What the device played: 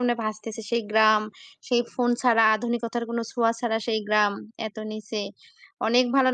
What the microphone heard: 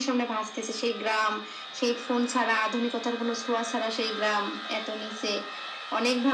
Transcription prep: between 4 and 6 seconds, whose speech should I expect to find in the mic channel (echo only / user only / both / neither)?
echo only